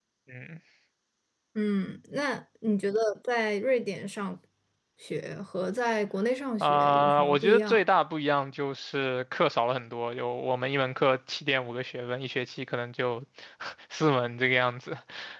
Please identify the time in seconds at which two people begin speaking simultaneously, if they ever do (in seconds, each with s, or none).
6.6 s